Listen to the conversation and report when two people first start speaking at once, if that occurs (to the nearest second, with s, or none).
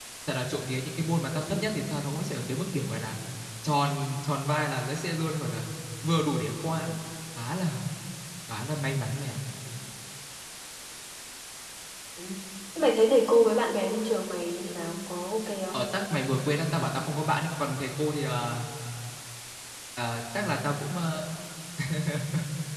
none